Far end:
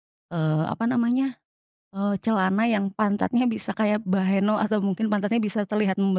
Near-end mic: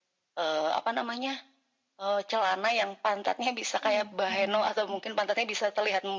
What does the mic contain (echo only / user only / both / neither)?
both